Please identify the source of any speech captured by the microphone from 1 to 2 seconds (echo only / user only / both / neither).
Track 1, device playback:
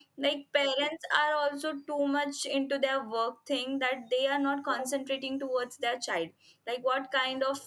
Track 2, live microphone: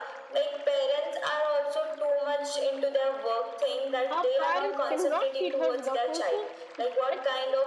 echo only